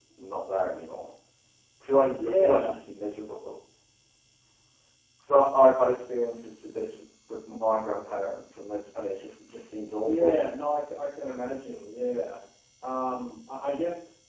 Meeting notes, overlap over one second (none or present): none